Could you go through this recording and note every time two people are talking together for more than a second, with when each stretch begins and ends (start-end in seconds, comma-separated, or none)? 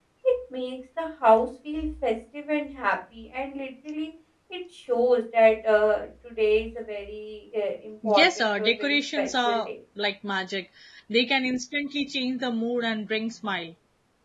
8.0-9.7